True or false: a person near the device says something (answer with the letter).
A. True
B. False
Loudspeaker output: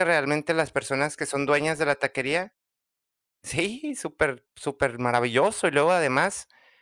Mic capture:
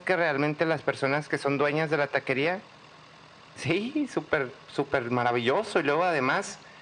B